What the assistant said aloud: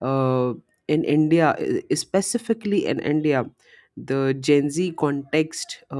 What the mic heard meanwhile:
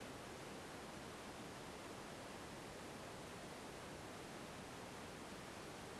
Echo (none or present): none